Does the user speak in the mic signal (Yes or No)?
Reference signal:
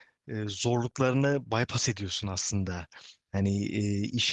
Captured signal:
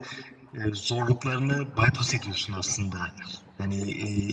No